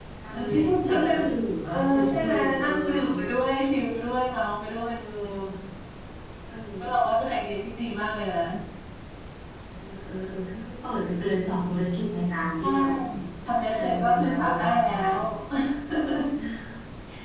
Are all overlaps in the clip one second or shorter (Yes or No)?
No